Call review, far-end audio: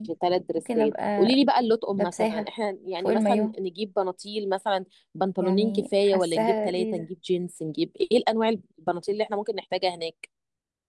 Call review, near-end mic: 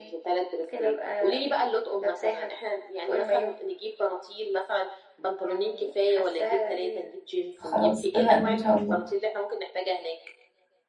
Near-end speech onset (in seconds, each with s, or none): 7.6 s